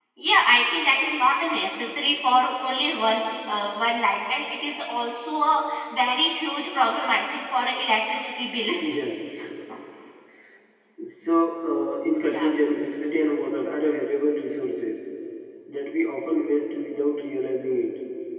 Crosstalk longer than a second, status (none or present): none